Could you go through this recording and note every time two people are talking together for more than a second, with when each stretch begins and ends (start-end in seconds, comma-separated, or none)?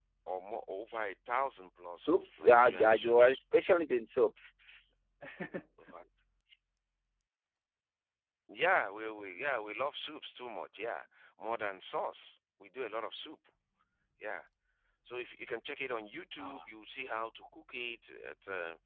2.0-3.4